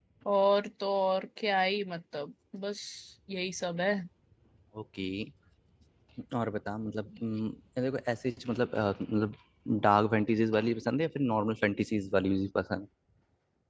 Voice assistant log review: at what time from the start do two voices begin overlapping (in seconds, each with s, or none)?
none